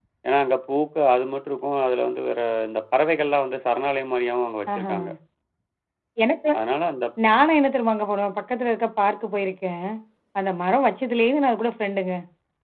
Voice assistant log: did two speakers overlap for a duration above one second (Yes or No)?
No